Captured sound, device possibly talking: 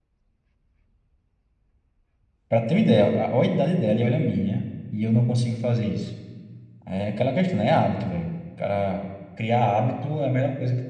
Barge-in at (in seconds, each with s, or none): 2.5 s